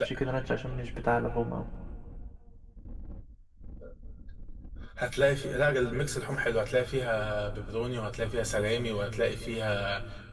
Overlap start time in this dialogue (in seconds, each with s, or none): none